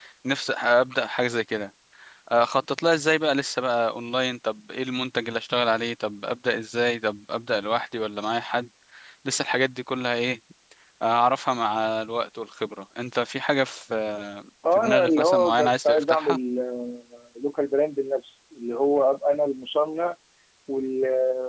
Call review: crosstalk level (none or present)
present